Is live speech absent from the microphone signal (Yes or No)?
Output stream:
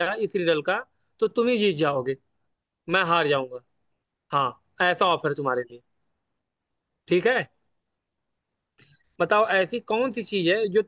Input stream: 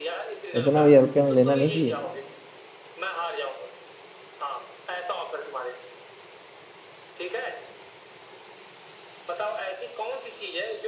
No